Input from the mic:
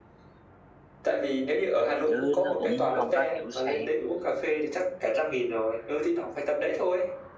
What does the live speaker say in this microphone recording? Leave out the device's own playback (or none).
chứ nó cũng không có kiểu sang